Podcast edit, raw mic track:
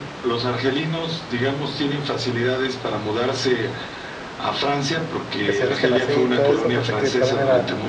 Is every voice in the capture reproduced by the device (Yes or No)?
No